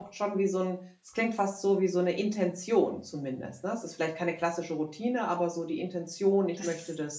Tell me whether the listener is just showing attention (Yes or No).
No